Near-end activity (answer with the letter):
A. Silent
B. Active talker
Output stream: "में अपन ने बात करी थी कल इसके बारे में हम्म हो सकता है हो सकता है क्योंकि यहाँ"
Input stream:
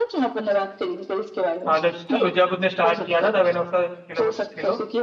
B